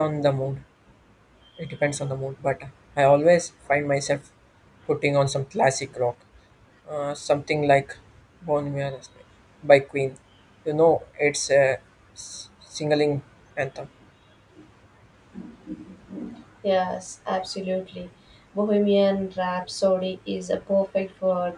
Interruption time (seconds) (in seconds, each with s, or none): none